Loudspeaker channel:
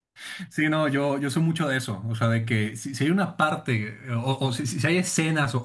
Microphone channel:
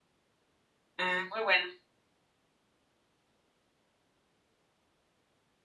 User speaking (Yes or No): Yes